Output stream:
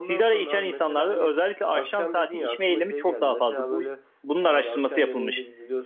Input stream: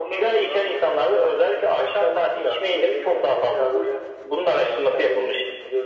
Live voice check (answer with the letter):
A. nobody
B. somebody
A